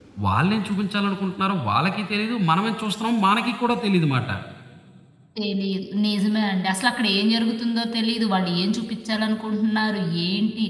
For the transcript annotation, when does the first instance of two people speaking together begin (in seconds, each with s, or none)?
none